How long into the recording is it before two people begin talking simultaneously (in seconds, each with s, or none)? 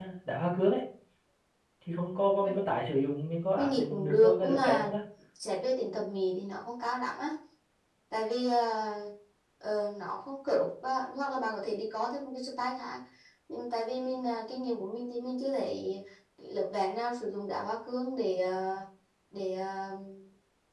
3.6 s